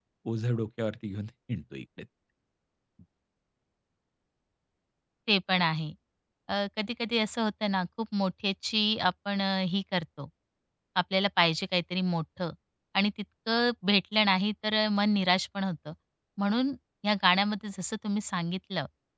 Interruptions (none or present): none